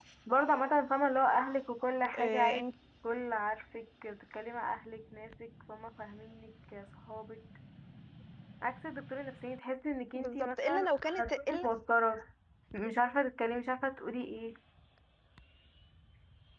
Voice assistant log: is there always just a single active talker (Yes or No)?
No